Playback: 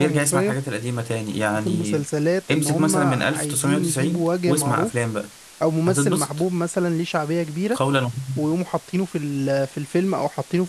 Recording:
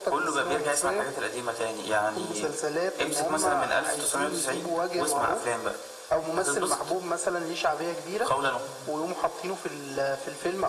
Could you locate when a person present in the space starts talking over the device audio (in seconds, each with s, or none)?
none